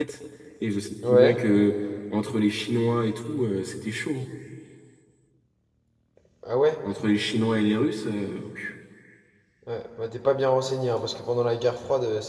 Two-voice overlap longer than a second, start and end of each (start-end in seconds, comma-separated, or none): none